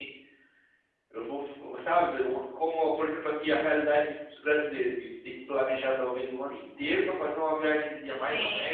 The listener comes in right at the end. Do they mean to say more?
No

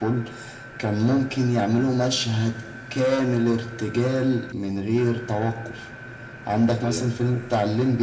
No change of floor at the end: Yes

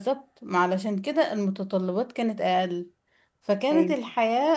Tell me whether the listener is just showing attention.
Yes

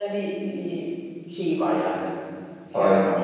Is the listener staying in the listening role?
No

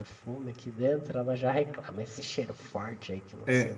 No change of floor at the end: No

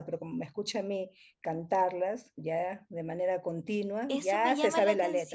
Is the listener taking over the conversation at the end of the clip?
Yes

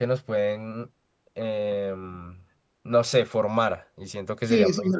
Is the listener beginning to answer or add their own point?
Yes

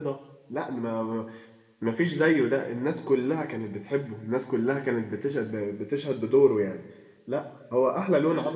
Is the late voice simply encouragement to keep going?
No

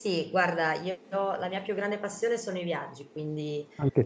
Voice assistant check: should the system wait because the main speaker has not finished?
Yes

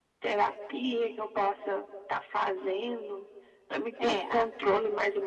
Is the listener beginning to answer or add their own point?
No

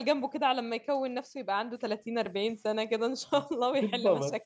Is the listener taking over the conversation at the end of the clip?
Yes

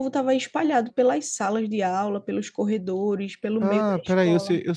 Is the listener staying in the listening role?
No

